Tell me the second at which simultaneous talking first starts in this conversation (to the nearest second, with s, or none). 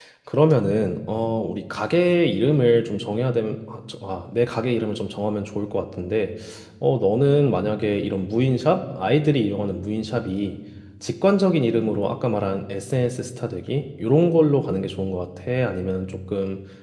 none